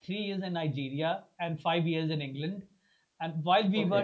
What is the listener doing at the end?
listening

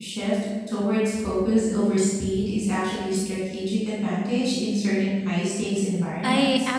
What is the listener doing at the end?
taking over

